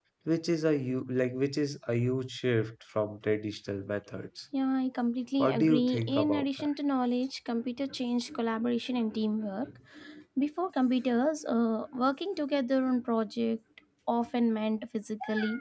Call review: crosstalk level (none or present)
present